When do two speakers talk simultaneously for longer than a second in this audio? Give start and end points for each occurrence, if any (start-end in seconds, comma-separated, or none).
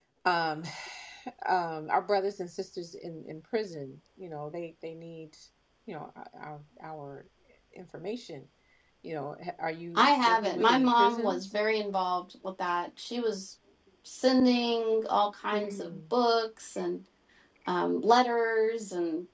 9.9-11.4